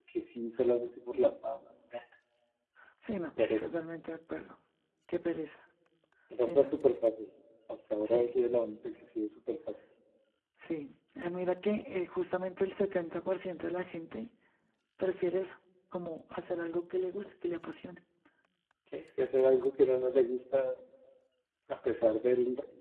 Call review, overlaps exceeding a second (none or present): none